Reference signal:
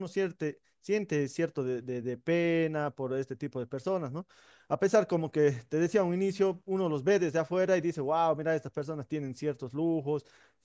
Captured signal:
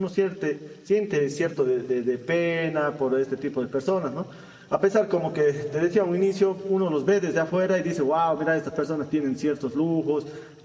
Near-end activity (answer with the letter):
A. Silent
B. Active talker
A